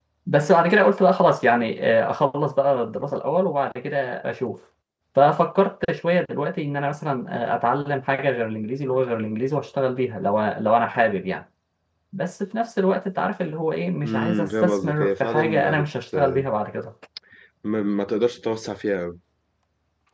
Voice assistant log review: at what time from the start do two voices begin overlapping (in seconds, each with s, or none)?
14.1 s